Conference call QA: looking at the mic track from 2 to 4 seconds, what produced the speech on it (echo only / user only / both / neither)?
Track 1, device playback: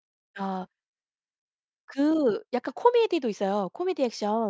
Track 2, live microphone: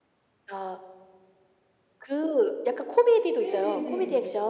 both